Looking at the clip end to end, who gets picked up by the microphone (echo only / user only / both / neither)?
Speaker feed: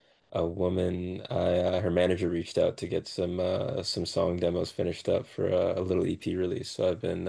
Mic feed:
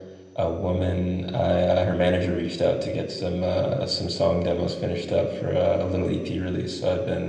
echo only